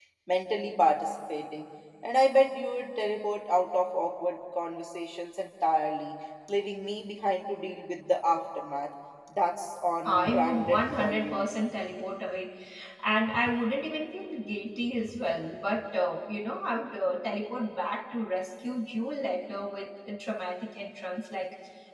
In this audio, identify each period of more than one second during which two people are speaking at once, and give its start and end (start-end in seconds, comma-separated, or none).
10.1-11.5